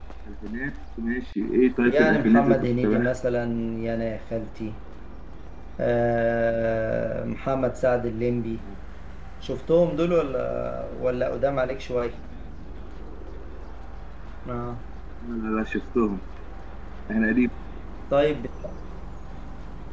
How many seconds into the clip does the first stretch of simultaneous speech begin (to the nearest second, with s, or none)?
2 s